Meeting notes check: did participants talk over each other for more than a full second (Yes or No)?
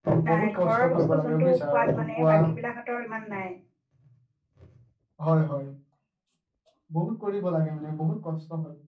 Yes